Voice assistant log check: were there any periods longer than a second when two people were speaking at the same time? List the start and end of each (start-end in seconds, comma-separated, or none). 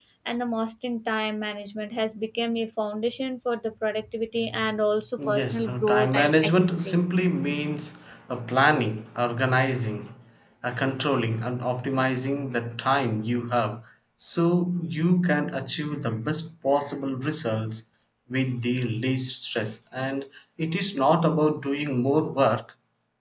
5.3-7.0